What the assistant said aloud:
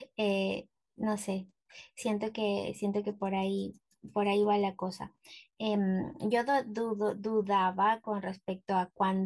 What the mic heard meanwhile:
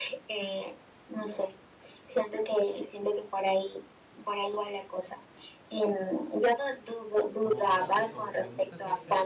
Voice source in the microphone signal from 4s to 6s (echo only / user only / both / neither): echo only